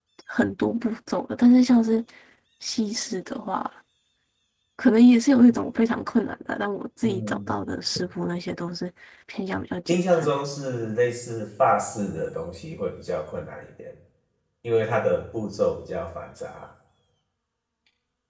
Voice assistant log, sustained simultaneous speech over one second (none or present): none